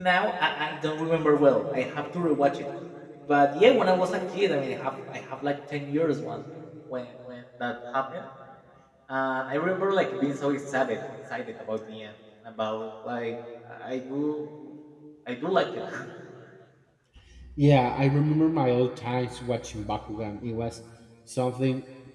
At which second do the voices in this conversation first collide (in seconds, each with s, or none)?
none